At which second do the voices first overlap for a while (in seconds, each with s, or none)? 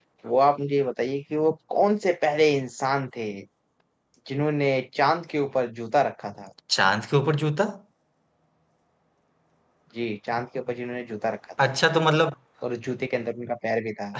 none